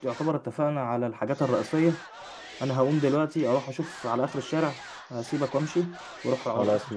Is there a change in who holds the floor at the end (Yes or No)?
No